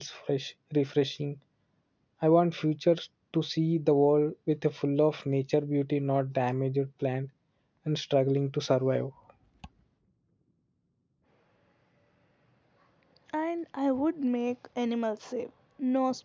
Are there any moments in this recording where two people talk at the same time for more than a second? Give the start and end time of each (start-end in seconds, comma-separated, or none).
none